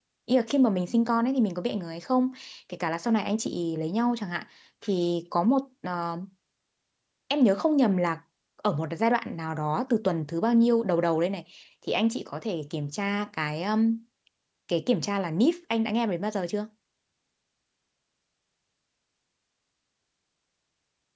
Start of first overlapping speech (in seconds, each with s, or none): none